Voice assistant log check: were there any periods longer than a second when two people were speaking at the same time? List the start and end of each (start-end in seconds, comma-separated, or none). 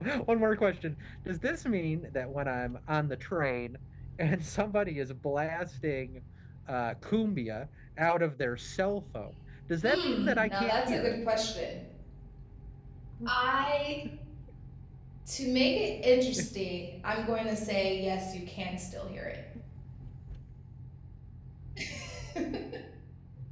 9.8-11.2